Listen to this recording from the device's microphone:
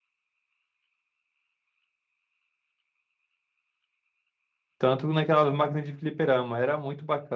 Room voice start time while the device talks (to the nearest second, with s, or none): 5 s